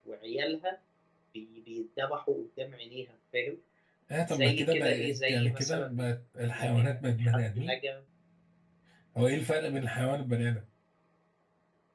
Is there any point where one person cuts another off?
Yes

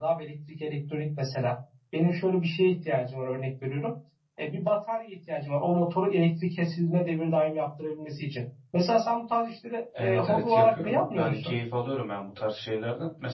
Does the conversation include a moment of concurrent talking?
Yes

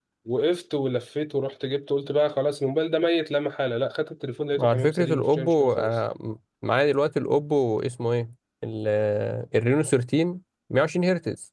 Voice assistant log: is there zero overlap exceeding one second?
No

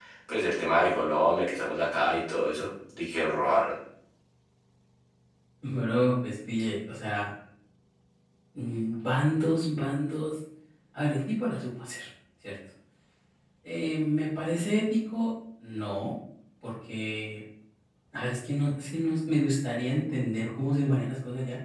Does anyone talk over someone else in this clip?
No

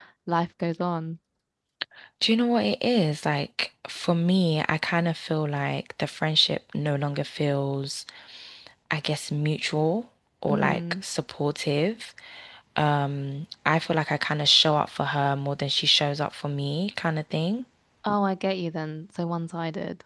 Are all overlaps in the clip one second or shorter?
Yes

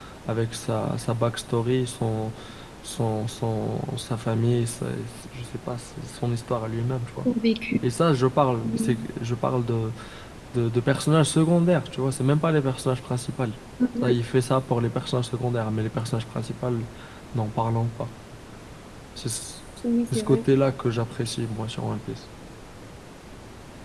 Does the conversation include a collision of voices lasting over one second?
No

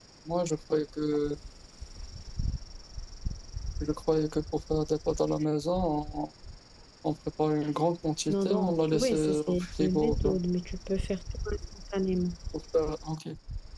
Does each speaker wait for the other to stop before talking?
No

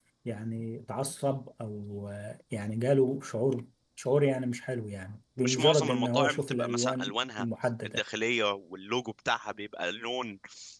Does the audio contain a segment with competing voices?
Yes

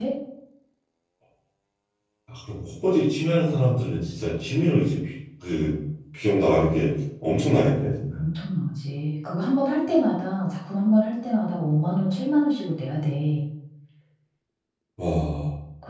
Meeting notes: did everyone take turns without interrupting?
Yes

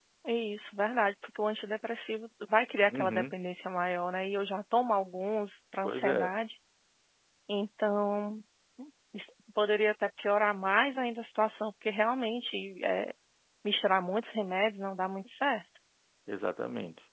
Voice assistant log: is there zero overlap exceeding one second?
Yes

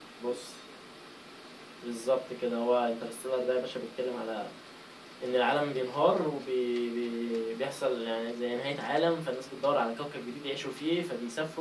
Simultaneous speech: No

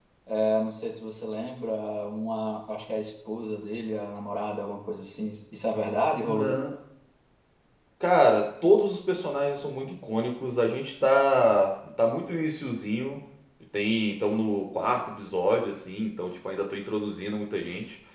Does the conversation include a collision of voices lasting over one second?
No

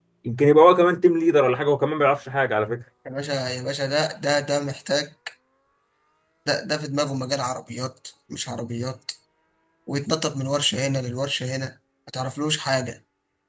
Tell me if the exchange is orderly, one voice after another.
Yes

